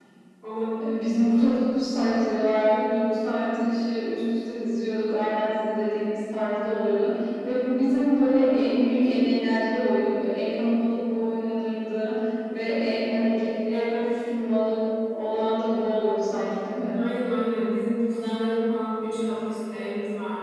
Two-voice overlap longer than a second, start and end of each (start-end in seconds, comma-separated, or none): none